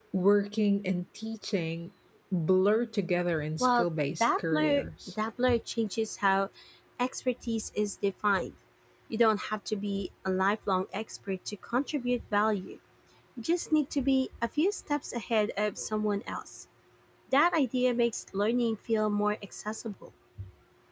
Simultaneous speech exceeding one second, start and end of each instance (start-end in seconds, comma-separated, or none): 3.6-5.1